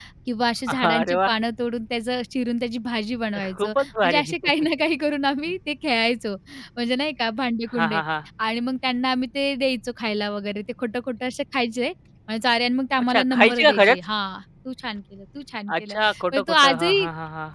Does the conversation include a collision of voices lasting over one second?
Yes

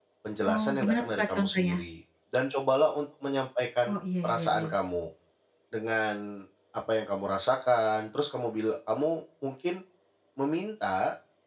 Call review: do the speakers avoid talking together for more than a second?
No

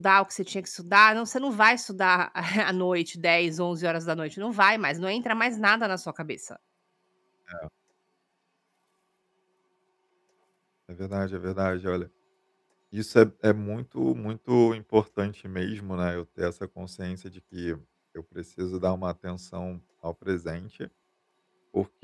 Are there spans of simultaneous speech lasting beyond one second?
No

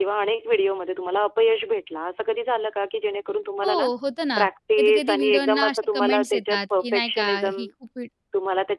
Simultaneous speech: Yes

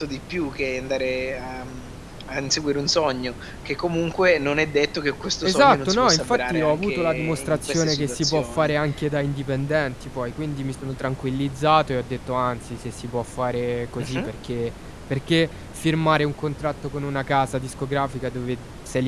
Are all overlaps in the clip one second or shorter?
No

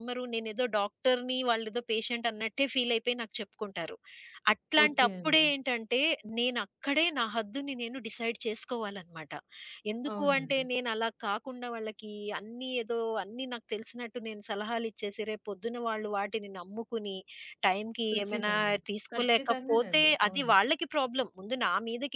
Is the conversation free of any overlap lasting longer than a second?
No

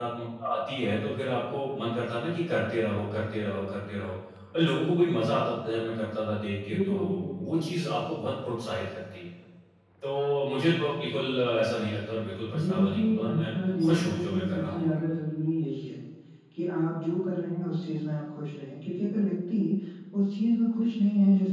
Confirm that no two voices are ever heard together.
No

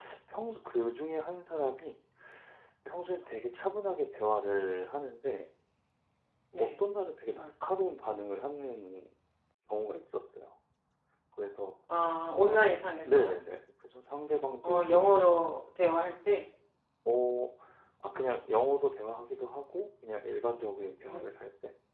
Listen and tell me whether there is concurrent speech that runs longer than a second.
No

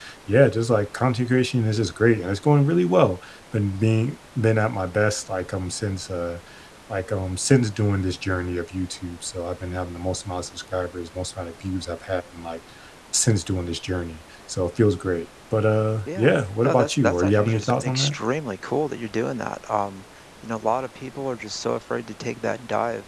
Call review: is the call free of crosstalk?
No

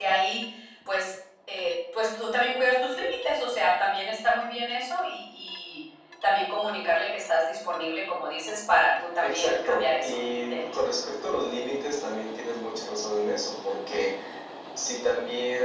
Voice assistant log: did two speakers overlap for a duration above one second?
Yes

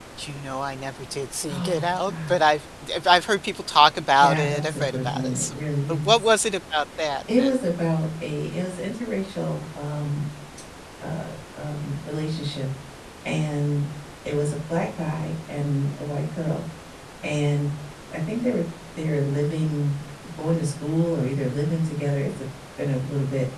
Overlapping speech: Yes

